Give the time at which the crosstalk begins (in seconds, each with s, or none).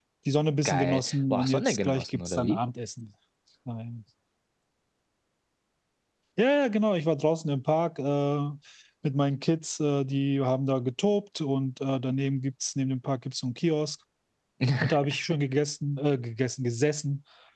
0.6 s